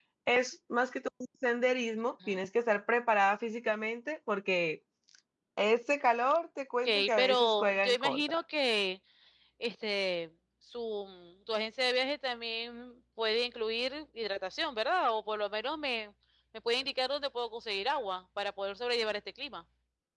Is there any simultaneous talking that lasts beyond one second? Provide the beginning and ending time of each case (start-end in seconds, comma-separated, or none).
6.8-8.4